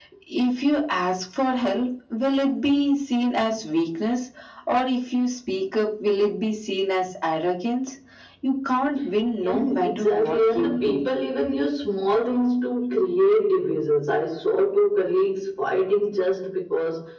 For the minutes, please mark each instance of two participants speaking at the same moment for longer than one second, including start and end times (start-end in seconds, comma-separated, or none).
9.4-11.1